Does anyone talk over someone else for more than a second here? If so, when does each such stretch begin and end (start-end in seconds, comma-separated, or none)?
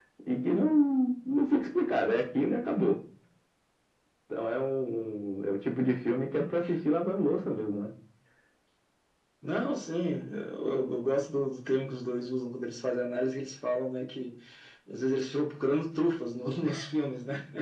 none